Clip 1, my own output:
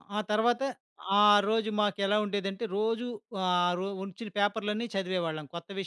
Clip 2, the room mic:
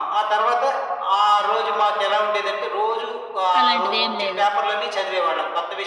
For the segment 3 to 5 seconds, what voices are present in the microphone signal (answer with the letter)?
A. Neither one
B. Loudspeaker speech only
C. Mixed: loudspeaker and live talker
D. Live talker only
C